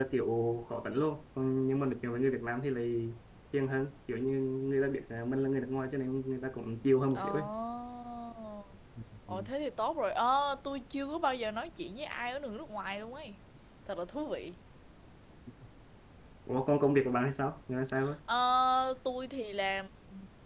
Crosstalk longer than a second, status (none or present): none